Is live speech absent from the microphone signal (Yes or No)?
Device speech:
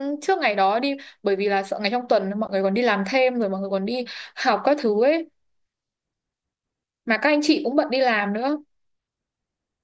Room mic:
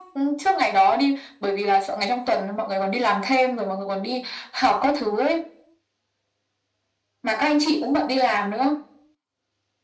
Yes